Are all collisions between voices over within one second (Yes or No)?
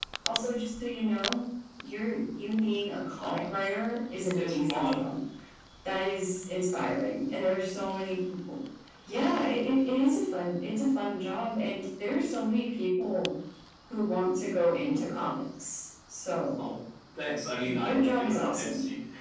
No